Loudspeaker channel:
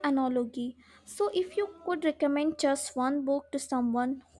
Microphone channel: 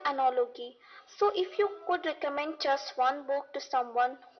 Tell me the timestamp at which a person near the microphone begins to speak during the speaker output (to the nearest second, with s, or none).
none